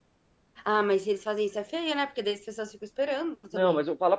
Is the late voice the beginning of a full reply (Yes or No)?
Yes